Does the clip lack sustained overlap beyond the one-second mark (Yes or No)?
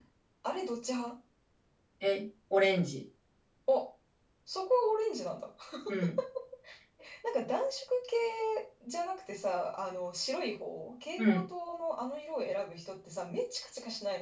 Yes